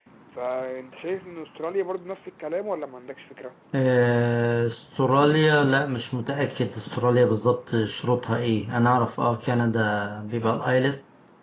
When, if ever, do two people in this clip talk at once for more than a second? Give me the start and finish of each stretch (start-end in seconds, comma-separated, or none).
none